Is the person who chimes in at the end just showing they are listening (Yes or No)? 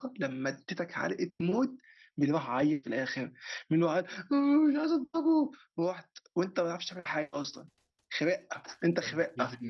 No